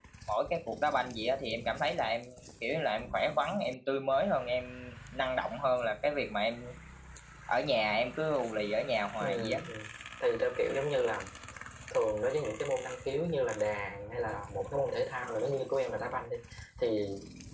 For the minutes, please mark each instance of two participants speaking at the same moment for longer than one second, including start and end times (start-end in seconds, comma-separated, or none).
none